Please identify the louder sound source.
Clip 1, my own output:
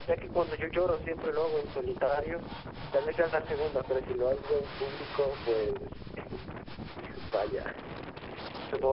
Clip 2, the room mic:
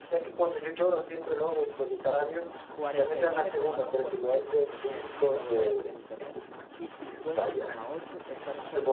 echo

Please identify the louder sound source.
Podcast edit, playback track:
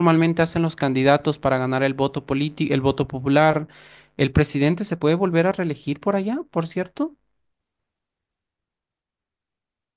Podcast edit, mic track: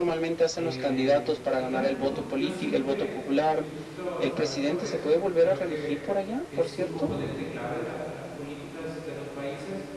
echo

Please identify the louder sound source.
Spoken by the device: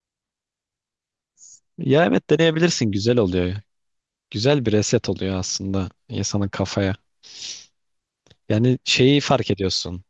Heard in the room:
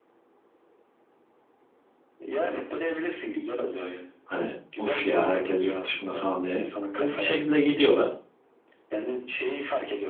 user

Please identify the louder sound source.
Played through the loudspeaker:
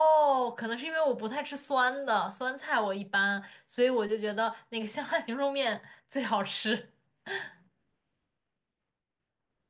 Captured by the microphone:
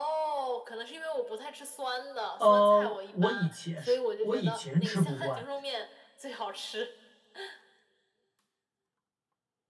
user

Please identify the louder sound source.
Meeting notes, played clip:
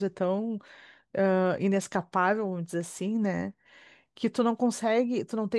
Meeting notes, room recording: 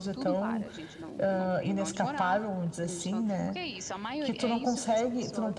echo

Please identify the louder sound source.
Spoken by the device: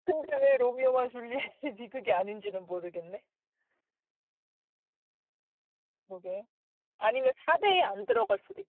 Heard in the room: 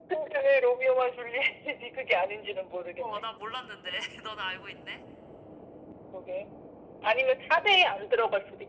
echo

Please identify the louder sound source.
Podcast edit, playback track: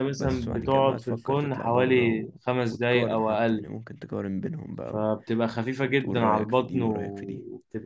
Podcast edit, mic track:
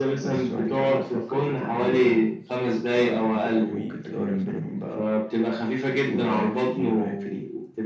echo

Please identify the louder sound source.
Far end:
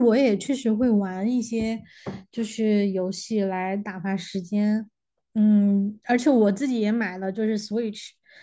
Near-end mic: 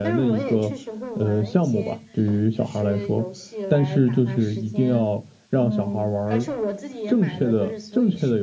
user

